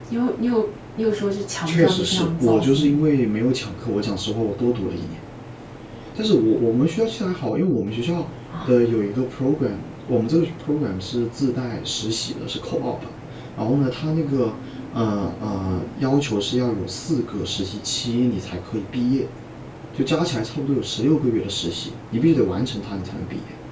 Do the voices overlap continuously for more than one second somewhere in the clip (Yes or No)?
Yes